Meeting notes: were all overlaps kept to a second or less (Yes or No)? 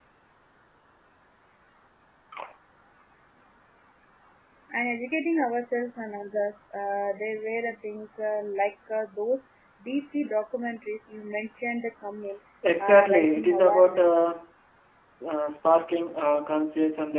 No